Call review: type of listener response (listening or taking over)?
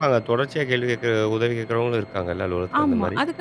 taking over